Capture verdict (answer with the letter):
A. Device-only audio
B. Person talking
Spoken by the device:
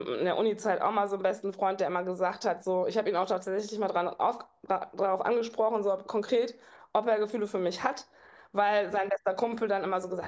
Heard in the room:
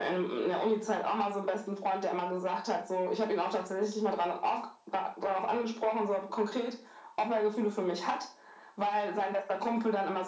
A